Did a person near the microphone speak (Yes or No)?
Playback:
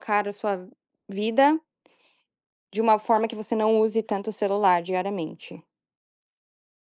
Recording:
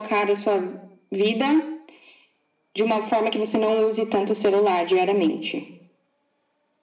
No